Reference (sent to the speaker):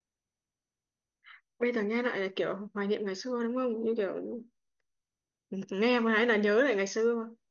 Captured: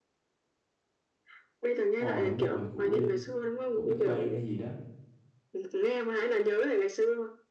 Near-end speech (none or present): present